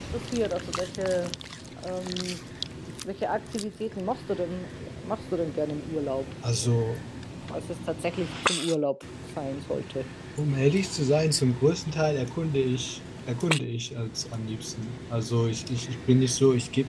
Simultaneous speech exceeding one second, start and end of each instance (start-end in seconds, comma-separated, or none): none